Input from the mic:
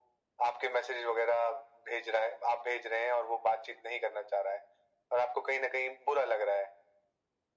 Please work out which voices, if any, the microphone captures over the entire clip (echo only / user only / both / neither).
echo only